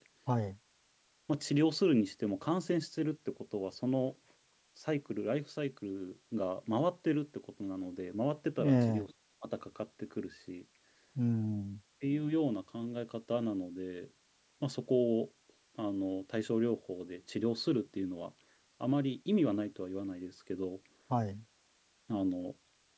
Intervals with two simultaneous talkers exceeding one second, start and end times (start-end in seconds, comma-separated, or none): none